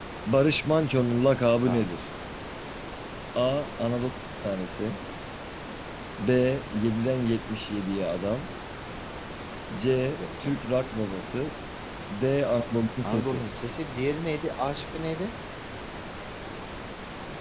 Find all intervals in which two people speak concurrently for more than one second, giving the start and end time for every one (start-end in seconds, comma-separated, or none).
none